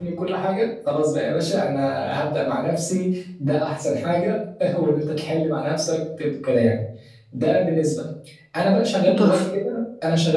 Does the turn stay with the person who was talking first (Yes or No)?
Yes